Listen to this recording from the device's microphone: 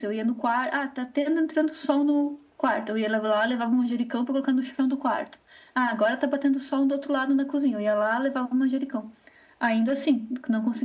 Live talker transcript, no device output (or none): none